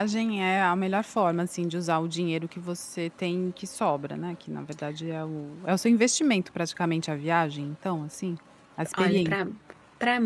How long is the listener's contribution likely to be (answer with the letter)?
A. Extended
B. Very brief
A